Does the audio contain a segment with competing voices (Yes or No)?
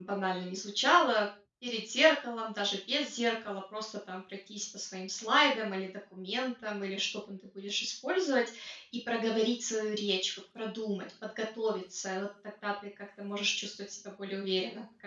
No